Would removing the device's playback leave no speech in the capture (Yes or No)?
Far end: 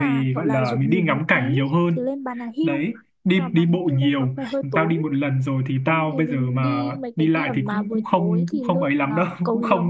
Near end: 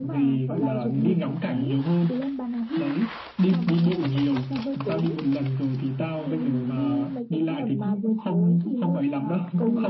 Yes